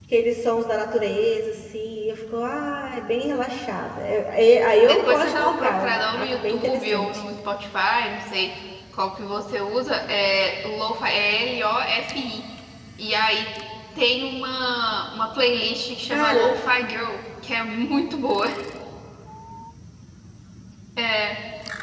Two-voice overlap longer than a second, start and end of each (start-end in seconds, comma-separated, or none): 4.8-7.1